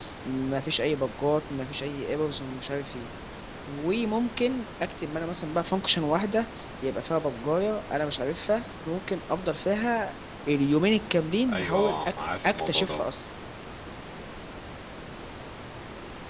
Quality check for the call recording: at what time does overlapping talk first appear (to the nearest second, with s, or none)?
11 s